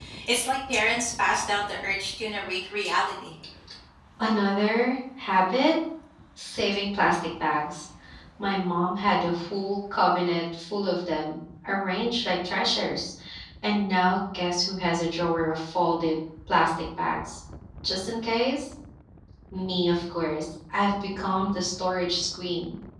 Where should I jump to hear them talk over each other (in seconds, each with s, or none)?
none